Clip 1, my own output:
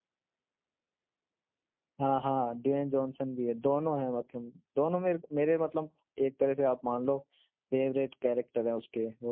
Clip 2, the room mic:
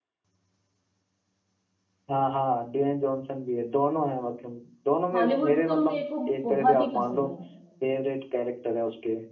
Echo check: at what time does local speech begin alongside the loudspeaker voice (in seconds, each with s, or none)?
5.1 s